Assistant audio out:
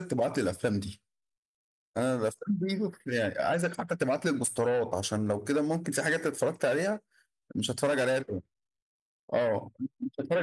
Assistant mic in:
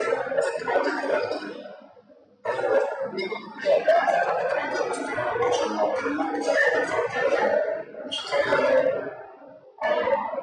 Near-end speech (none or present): none